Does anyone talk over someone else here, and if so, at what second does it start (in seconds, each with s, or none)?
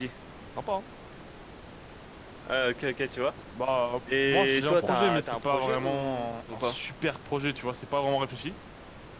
4.2 s